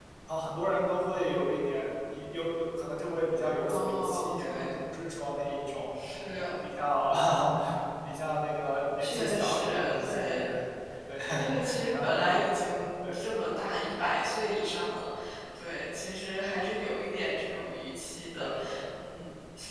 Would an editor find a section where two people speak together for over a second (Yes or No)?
Yes